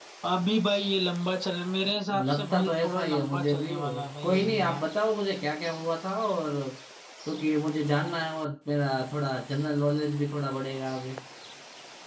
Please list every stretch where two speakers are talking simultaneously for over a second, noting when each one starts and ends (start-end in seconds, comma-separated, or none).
2.2-4.8